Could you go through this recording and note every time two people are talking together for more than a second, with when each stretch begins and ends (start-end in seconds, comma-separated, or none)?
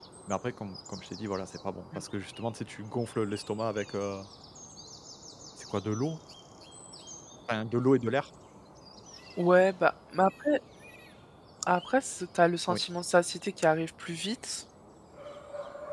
none